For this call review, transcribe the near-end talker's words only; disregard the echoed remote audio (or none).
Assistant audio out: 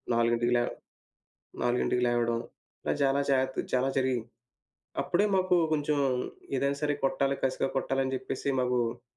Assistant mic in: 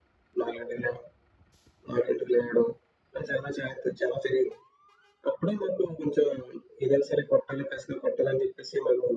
none